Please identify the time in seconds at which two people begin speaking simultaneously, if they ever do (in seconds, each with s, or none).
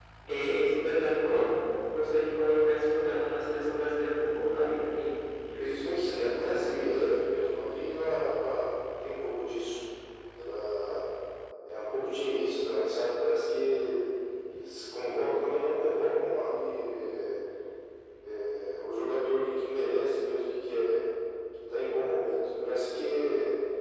5.6 s